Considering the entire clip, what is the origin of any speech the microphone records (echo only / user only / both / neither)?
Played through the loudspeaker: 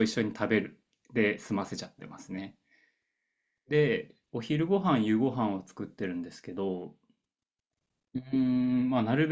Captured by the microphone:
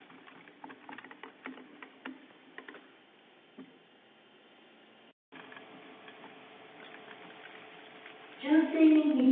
user only